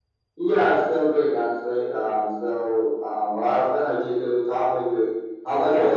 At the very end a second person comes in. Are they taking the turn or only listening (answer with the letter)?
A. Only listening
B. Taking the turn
B